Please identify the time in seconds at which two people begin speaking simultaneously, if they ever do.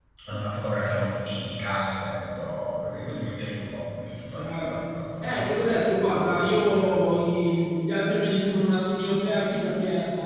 4 s

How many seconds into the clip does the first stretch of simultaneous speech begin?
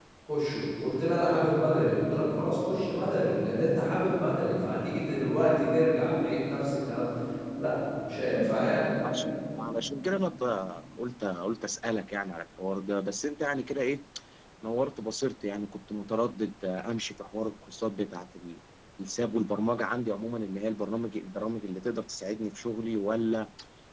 none

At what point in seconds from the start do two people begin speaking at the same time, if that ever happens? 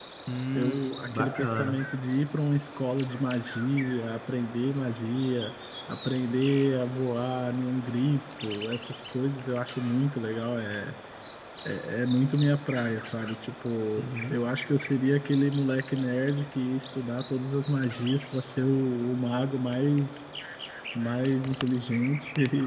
1 s

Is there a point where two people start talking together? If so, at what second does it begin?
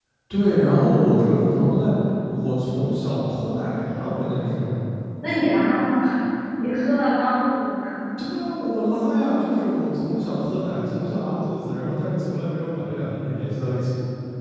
none

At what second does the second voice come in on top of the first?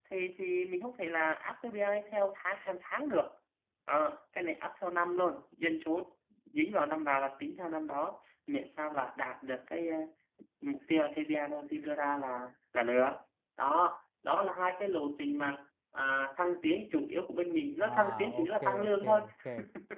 18 s

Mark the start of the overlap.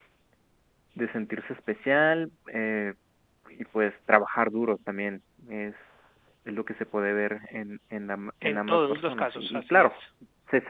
8 s

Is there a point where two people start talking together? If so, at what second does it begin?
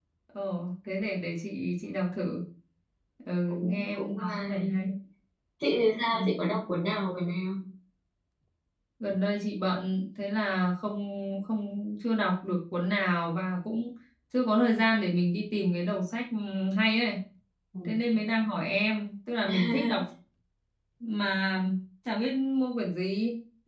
3 s

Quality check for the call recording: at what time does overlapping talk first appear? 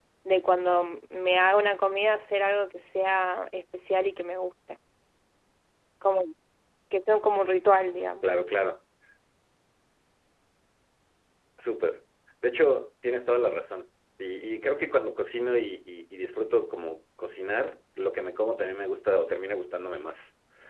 none

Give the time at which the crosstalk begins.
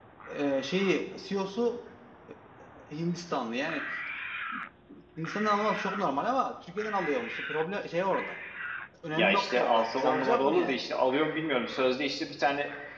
9 s

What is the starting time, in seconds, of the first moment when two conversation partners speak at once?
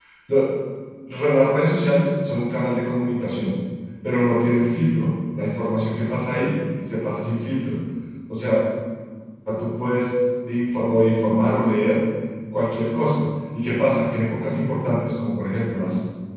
none

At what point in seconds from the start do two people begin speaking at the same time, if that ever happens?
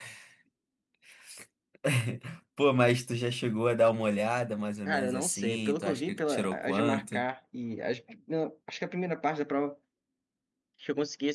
5 s

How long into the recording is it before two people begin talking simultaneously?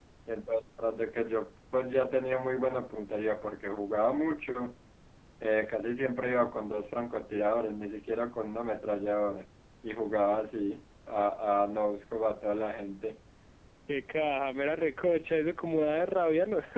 none

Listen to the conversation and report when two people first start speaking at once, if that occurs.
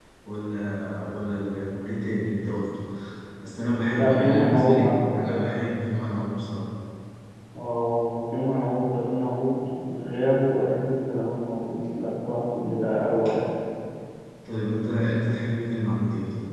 4 s

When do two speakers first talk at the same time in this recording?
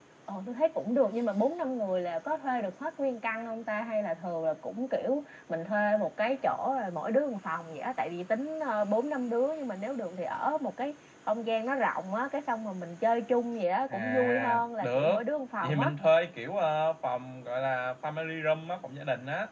14 s

